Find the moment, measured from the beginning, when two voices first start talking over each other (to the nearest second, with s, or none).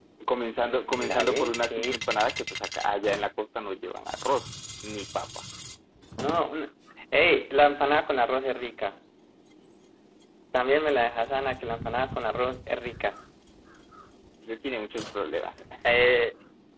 1 s